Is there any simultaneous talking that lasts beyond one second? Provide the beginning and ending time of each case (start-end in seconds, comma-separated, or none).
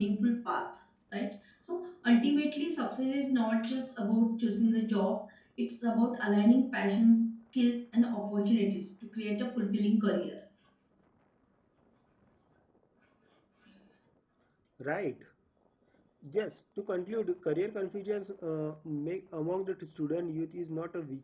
none